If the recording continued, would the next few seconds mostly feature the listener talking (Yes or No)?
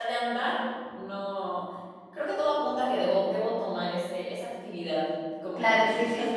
Yes